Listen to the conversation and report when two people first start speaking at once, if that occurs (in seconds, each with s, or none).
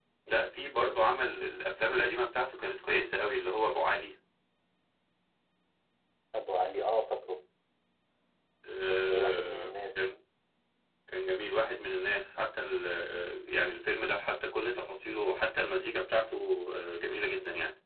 8.9 s